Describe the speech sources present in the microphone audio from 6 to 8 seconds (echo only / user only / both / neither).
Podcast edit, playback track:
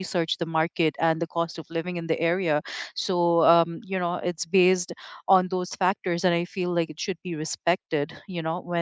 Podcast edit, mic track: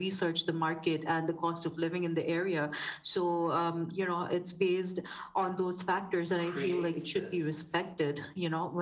both